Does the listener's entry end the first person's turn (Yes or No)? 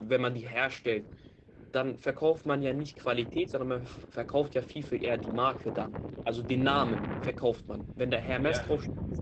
Yes